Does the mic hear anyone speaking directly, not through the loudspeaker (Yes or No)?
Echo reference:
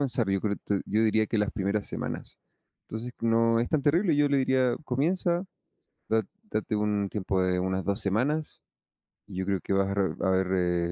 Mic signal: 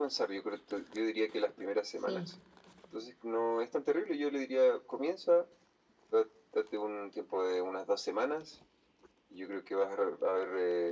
Yes